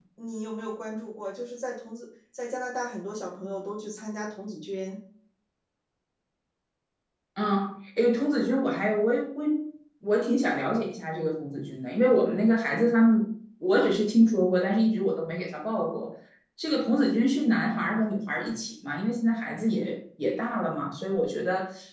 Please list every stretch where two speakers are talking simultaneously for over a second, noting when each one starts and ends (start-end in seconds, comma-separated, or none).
none